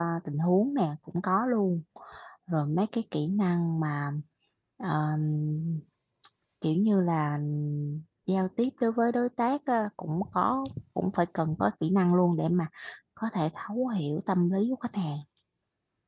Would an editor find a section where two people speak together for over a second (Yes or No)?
No